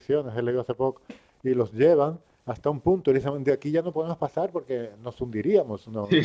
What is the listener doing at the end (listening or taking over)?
listening